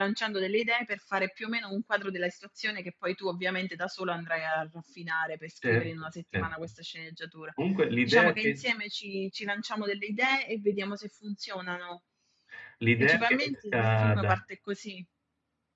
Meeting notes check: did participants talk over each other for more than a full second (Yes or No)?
Yes